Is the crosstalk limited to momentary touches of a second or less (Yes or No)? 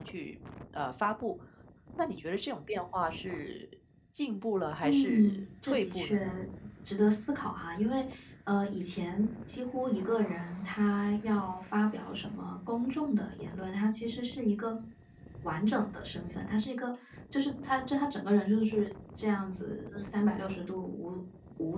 No